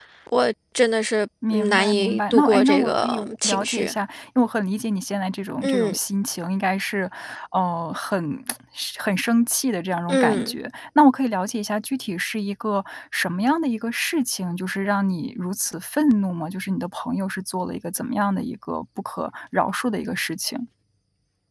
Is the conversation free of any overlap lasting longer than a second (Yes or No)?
No